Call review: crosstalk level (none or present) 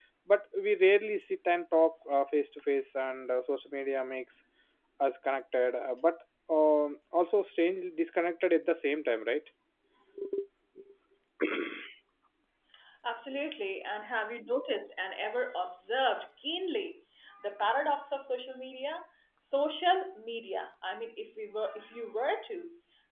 none